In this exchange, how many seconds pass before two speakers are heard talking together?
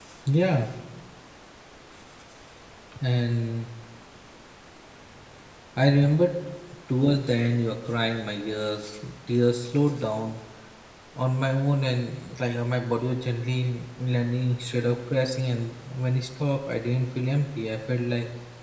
none

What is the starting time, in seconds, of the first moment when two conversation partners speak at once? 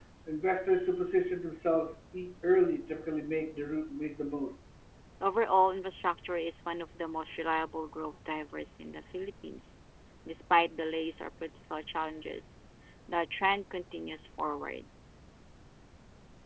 none

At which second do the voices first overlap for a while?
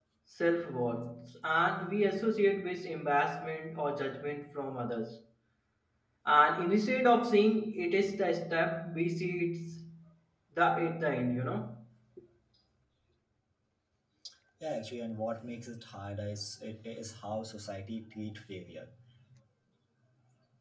none

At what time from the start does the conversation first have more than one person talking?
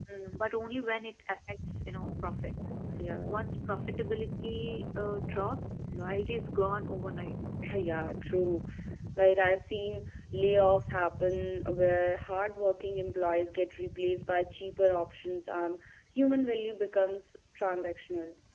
none

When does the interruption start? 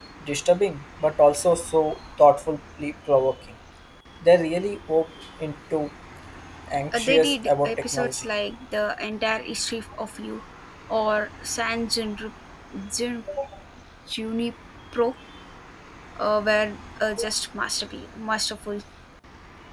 6.9 s

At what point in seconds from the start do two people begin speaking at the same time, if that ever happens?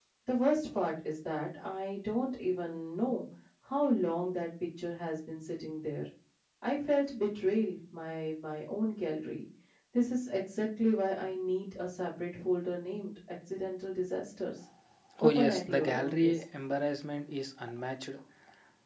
15.2 s

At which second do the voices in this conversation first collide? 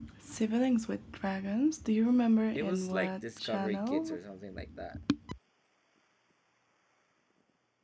2.5 s

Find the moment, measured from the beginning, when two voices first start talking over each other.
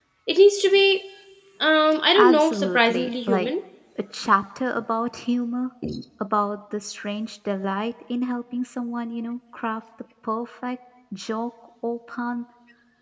2.2 s

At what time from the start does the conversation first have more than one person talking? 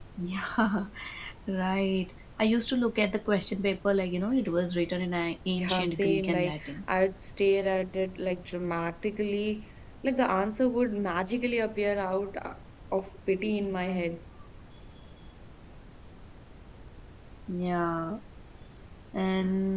5.6 s

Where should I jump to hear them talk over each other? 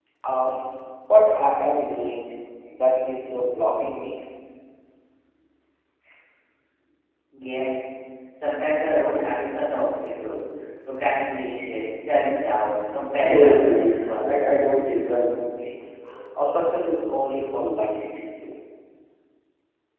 13.2 s

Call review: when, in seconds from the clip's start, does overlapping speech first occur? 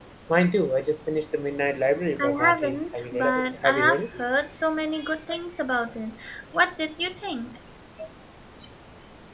2.2 s

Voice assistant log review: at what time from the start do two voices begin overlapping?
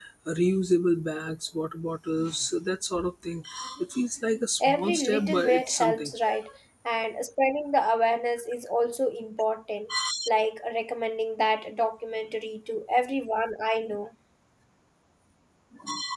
4.6 s

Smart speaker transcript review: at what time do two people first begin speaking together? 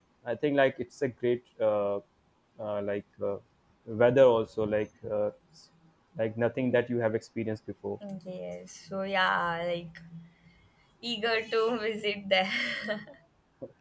none

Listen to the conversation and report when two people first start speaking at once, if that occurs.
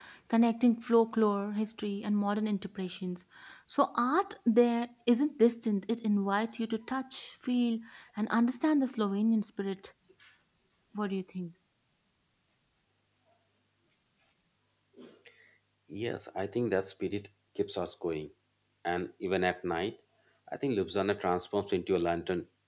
none

